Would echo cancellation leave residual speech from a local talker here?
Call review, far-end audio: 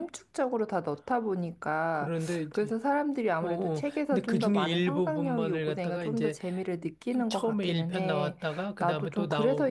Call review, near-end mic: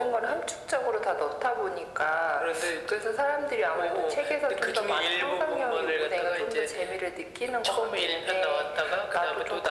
No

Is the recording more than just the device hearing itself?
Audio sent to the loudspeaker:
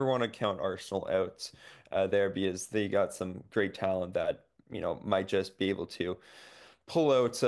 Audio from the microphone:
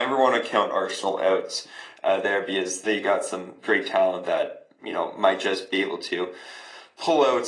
No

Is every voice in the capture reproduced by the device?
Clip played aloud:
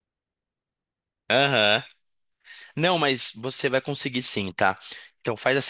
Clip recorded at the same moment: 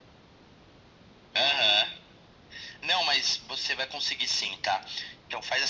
No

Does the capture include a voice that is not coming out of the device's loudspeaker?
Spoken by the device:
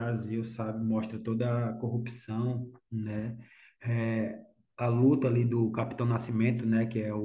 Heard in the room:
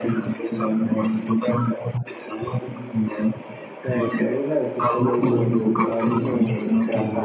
Yes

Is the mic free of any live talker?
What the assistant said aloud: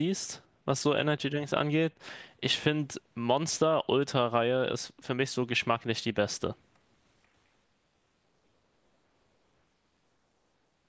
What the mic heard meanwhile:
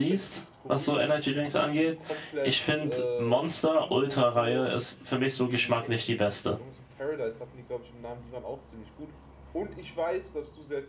No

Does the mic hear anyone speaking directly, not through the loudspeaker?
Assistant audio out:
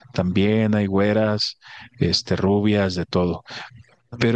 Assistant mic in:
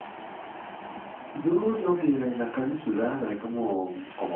Yes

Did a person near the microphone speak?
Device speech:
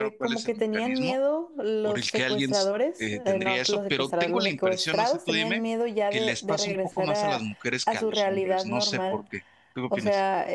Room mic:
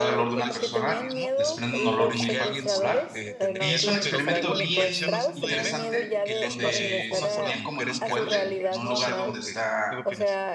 Yes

